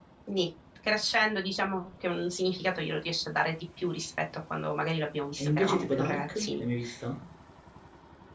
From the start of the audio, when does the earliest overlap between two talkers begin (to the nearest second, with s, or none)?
5 s